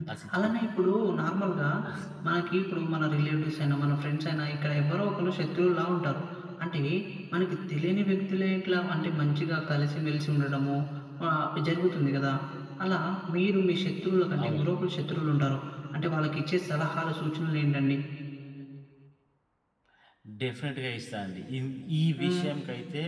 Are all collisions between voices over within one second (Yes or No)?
Yes